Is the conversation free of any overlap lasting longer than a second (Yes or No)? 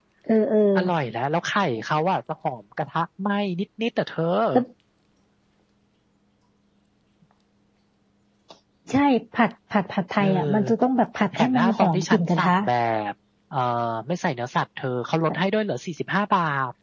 No